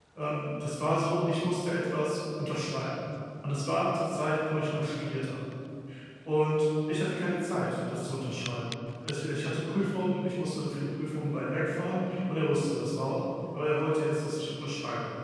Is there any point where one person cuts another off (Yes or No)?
No